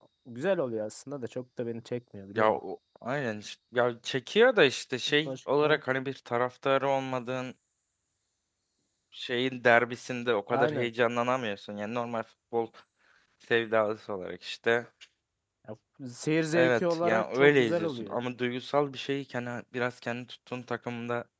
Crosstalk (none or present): present